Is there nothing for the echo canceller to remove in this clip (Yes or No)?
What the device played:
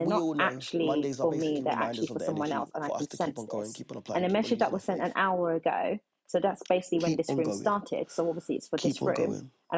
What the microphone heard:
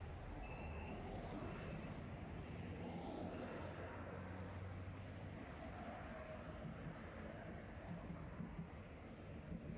Yes